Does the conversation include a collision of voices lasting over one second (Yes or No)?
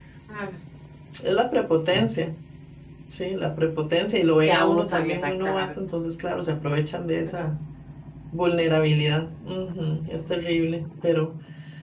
Yes